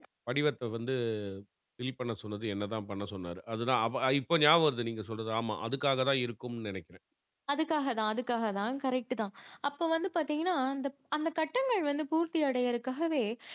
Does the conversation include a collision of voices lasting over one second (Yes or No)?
No